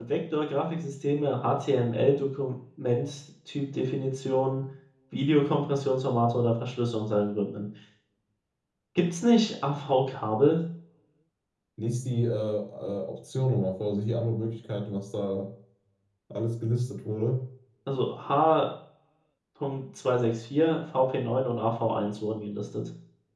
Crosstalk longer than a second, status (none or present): none